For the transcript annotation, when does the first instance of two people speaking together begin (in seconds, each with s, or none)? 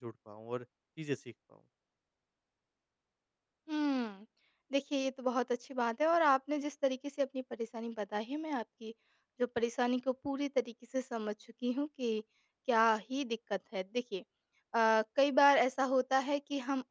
none